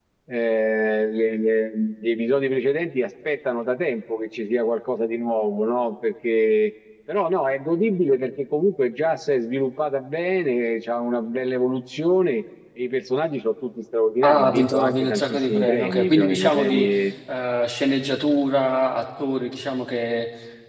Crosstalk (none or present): present